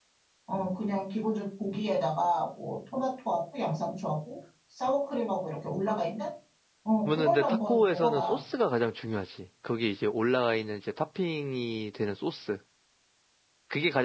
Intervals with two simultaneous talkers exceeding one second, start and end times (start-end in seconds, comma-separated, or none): 7.0-8.4